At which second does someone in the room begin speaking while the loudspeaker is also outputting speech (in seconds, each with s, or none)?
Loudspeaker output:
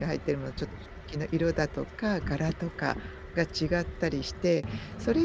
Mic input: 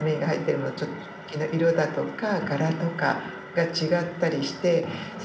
none